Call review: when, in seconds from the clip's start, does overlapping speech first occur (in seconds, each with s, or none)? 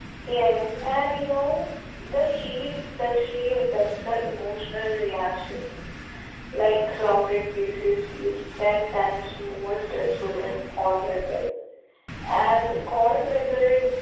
none